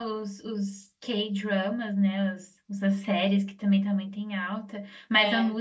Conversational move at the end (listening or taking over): listening